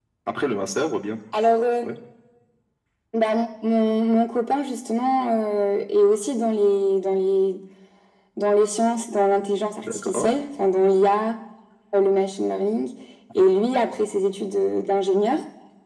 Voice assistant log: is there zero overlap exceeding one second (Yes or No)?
Yes